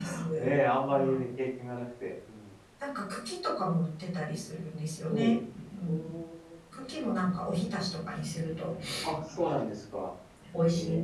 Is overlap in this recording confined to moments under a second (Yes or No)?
Yes